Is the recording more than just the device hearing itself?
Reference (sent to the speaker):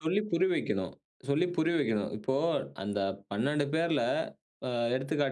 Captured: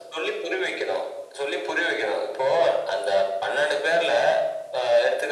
No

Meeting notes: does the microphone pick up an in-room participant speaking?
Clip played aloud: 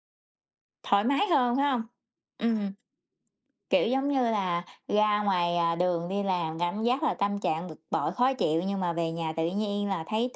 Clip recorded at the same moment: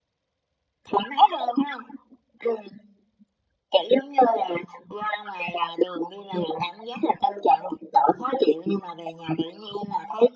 No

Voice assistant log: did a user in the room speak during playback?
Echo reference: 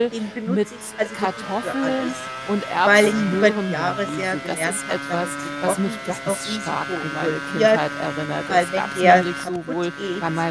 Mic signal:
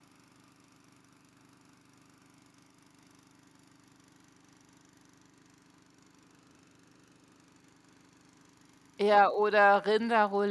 Yes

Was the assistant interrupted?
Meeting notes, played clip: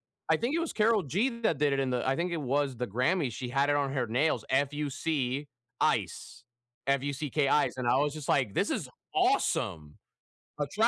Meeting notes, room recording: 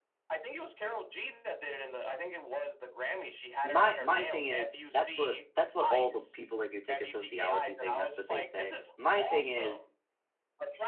Yes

